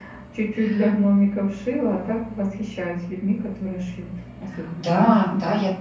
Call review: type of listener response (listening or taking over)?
taking over